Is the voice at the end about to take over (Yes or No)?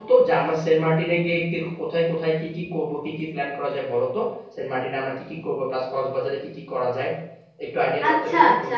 Yes